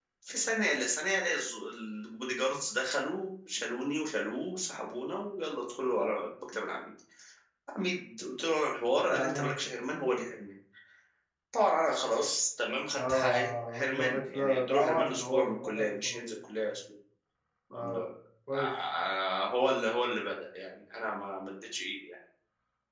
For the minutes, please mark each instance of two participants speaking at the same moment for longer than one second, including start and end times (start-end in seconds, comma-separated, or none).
13.1-16.4